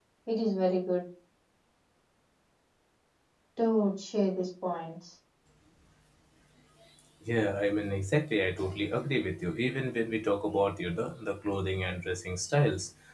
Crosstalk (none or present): none